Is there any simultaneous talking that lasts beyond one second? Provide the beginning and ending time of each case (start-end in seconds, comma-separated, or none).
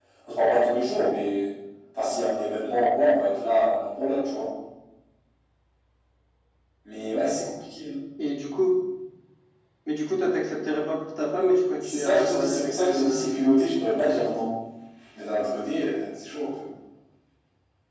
11.8-13.3